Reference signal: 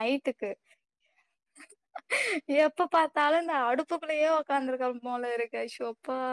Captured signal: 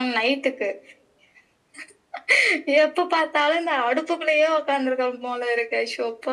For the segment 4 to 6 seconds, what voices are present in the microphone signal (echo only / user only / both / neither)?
echo only